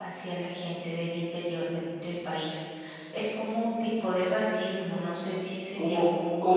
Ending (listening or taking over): taking over